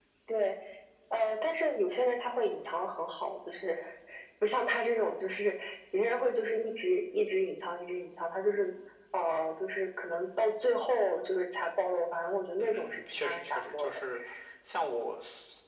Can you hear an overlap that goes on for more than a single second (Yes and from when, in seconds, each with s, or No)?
Yes, from 12.6 s